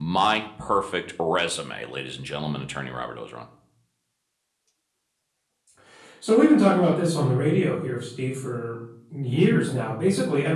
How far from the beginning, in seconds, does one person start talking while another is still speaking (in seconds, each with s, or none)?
none